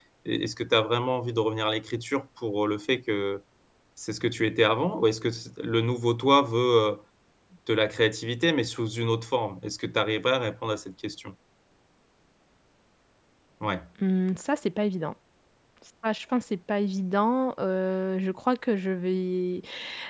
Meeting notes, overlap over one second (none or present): none